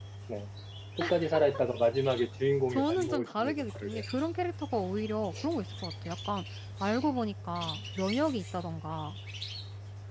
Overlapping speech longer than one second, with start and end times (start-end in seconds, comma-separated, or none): 2.7-4.0